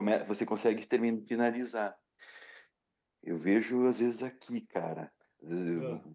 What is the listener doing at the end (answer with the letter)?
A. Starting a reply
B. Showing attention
B